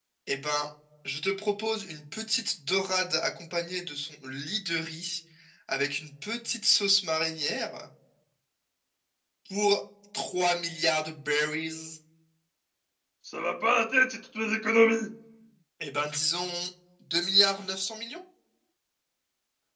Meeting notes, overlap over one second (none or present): none